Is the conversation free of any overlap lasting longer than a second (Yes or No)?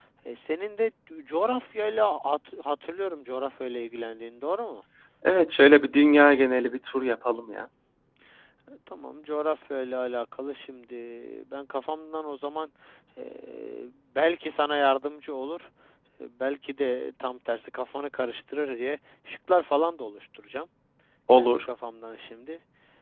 Yes